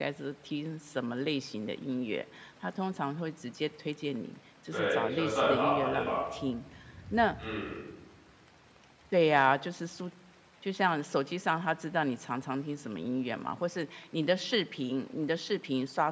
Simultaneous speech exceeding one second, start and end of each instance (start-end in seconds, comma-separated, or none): 4.7-6.2